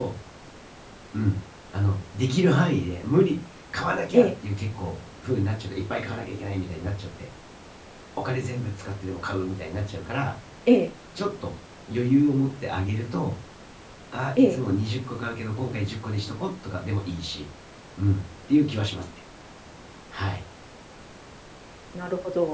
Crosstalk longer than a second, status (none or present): none